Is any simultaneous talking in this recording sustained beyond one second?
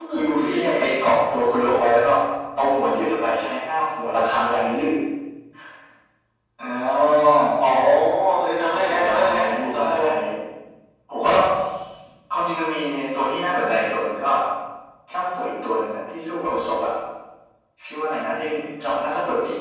Yes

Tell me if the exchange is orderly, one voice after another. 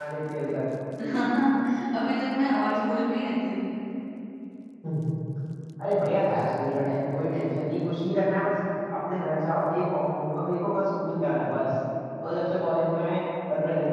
Yes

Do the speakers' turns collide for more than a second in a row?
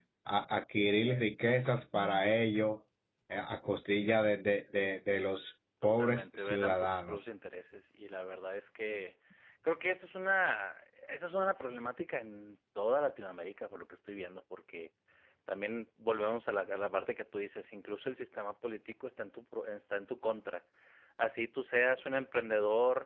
Yes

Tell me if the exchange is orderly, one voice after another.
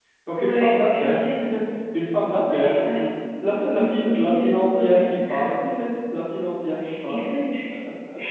No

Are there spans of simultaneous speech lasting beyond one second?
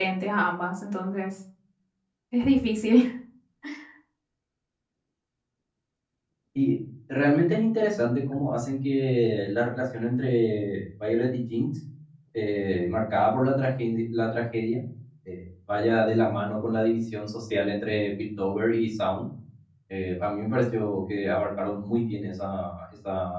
No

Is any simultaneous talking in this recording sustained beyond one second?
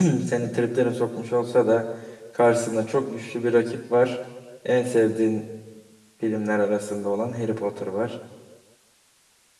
No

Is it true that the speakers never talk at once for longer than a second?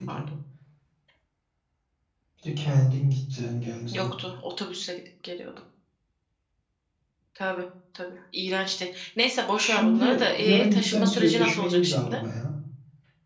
No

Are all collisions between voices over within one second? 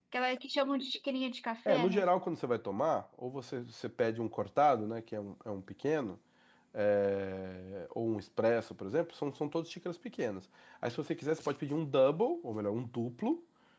Yes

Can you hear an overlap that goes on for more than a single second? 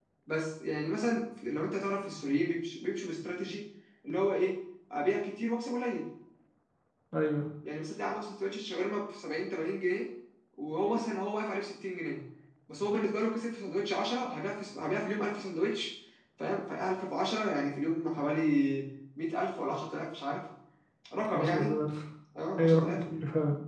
No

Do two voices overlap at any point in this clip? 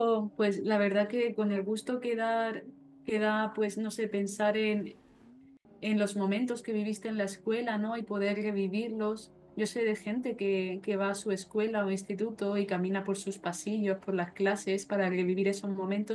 No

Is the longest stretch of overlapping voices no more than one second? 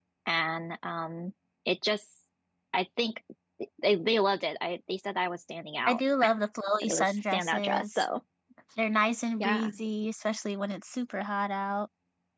No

